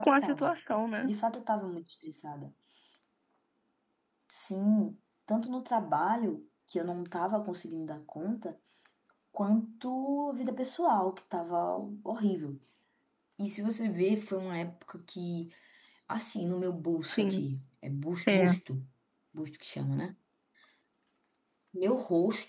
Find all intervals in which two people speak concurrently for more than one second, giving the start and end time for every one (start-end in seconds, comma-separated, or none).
none